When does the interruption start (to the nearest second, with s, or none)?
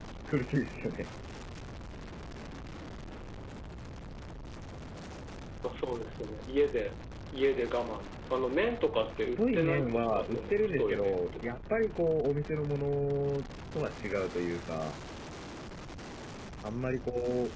9 s